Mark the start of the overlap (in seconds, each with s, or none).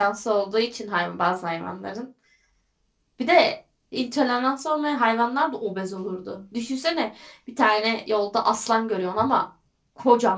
none